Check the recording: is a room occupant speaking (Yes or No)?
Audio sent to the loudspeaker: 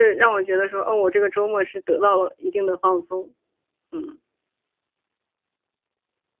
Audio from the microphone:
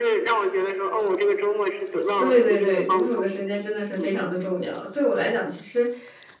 Yes